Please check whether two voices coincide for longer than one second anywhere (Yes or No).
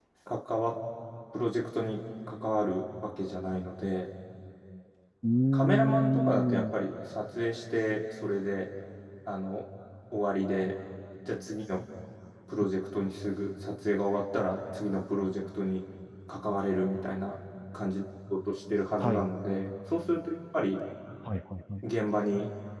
Yes